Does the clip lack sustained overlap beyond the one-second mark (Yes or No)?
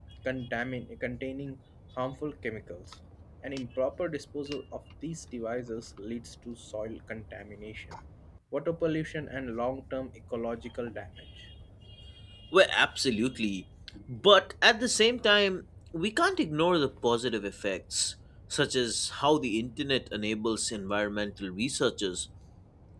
Yes